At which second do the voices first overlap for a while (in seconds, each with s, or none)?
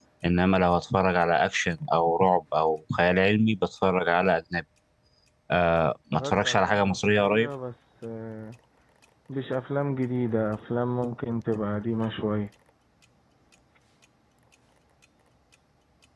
6.1 s